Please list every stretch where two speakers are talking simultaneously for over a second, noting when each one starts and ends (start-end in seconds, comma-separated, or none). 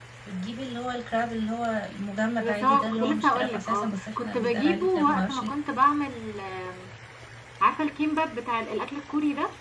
2.4-5.5